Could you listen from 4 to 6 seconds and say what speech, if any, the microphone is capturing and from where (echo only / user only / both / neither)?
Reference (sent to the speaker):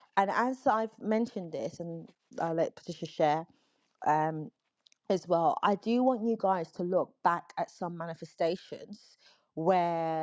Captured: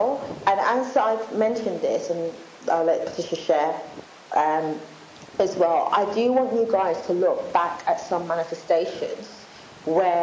echo only